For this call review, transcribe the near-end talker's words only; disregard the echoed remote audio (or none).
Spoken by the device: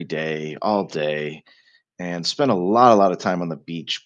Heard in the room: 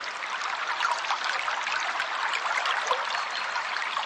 none